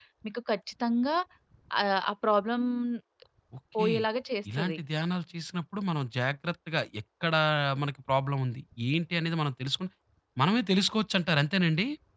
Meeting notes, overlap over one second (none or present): none